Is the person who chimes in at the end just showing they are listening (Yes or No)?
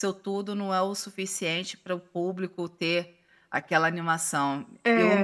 Yes